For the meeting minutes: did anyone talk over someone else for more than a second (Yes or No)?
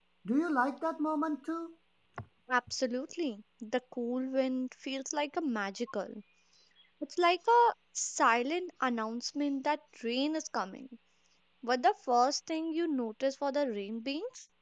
No